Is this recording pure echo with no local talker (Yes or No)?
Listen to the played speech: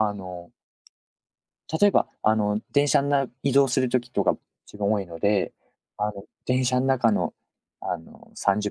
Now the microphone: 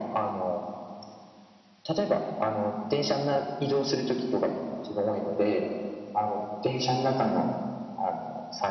Yes